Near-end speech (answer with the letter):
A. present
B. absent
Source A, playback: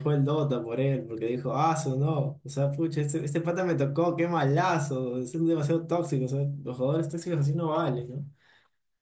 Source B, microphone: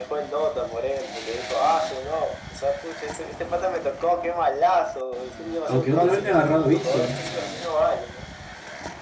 A